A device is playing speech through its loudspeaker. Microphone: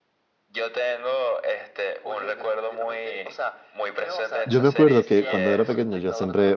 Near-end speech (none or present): present